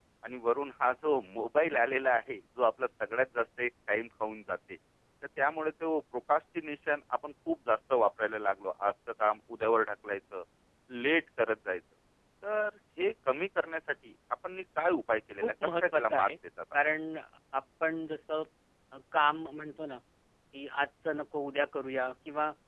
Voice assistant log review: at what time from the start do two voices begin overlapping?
15.1 s

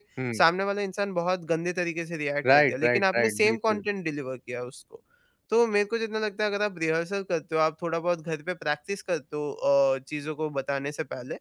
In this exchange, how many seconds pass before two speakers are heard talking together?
2.4 s

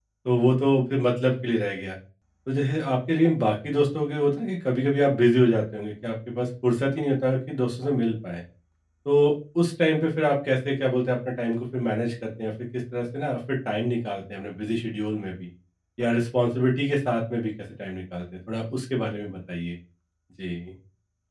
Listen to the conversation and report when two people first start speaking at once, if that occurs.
none

